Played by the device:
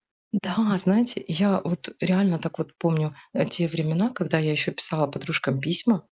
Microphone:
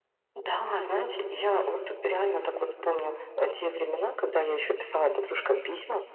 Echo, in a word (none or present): present